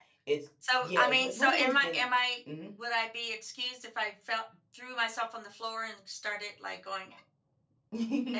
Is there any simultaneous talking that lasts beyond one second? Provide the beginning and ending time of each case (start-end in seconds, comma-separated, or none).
0.8-2.0